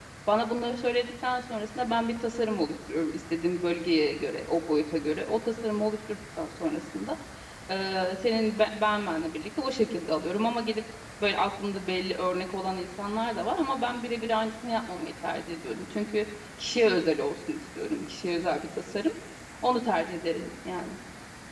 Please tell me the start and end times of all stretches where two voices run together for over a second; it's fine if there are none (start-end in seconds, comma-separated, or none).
none